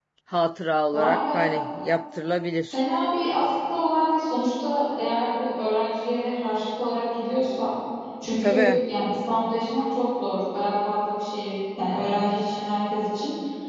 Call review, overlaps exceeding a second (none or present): none